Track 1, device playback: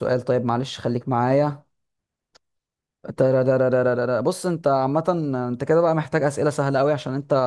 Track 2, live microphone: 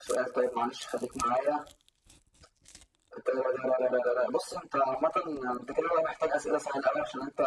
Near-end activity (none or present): none